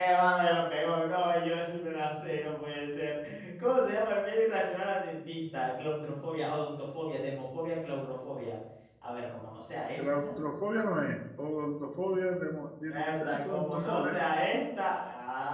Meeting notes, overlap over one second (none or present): present